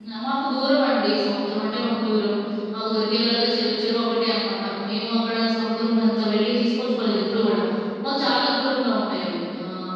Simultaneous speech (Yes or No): No